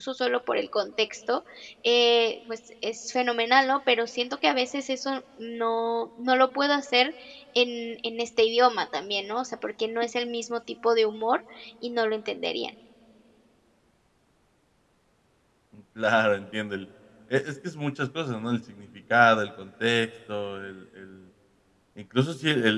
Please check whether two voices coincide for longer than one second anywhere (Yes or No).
No